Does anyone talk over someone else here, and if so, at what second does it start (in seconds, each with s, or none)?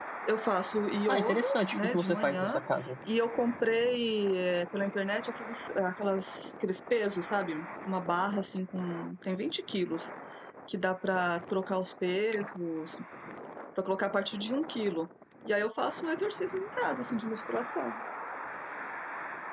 1.1 s